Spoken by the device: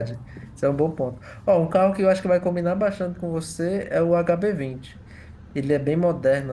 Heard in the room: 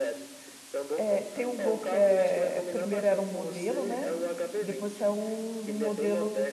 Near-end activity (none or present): present